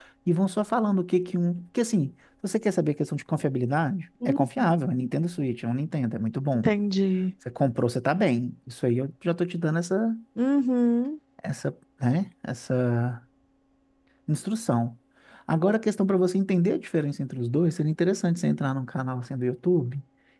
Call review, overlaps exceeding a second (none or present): none